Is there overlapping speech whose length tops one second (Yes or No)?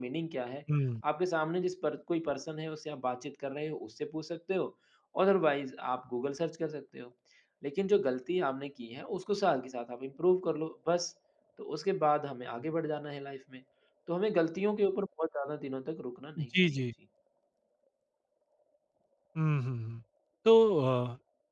No